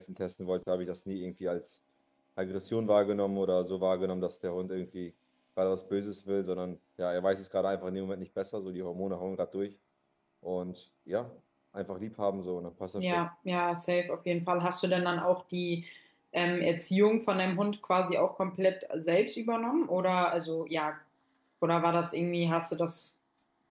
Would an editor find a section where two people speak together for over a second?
No

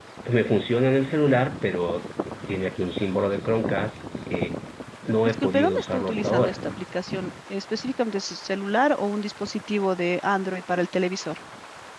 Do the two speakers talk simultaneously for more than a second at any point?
Yes, from 5.2 s

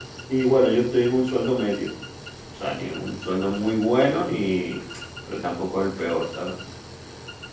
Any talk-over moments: No

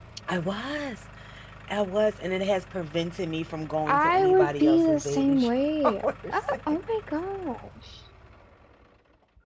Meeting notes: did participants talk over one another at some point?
Yes, from 3.9 s

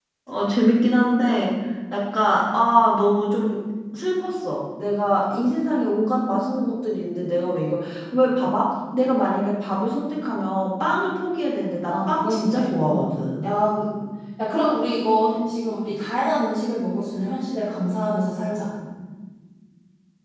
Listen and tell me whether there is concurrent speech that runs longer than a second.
Yes, from 11.9 s

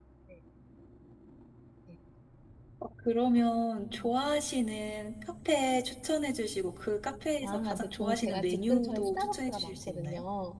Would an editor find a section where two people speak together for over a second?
Yes, from 7.4 s

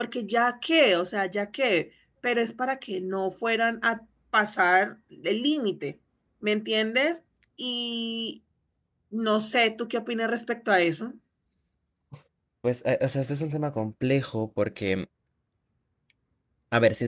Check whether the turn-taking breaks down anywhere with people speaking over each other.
No

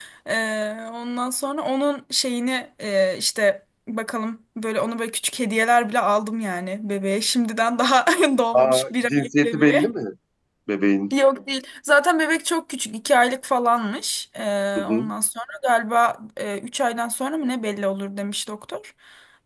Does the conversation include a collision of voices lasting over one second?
Yes, from 8.6 s

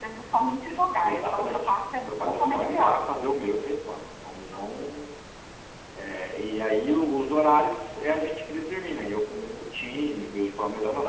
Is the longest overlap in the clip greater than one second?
Yes, from 1.0 s

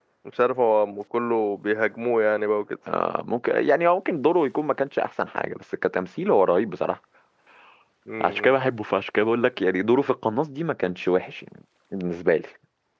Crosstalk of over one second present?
No

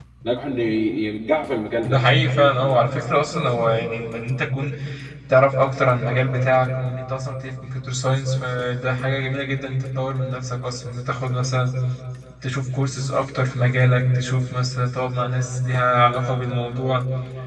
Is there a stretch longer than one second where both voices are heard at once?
No

